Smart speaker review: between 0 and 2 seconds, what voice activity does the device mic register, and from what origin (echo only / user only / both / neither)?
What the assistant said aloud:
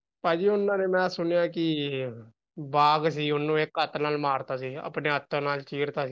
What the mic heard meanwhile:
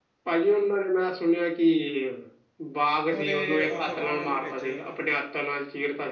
echo only